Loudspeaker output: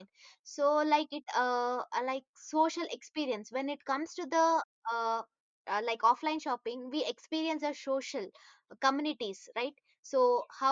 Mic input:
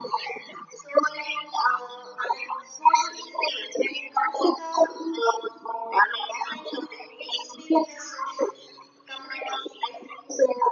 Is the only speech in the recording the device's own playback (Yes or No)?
Yes